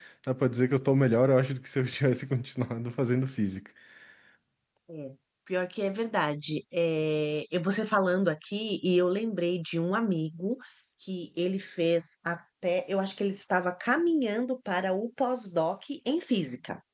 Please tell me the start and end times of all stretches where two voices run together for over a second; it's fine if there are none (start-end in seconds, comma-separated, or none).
none